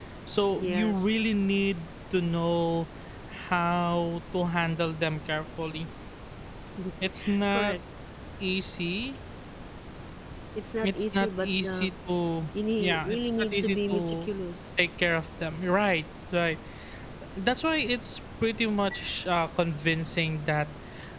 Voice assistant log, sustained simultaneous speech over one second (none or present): present